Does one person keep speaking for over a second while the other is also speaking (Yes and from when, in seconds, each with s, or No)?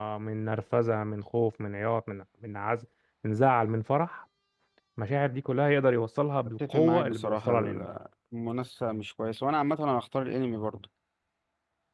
Yes, from 6.6 s